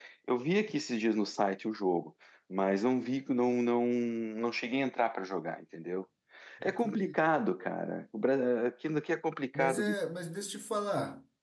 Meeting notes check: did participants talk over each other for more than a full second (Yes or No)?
No